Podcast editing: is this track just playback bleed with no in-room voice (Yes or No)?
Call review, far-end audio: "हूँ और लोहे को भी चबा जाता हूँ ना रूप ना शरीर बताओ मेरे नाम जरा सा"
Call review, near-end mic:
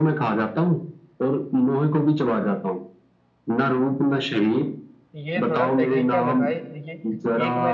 No